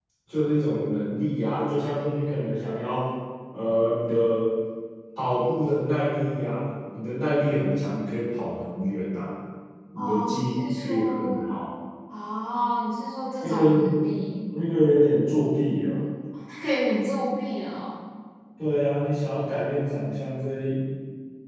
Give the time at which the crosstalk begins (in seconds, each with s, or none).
9.9 s